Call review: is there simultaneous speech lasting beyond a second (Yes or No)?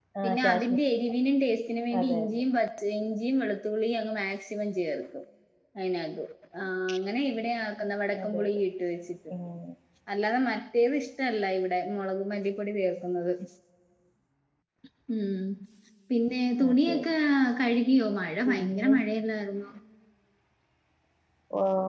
No